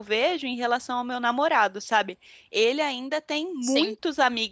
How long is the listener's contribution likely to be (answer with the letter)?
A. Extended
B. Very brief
B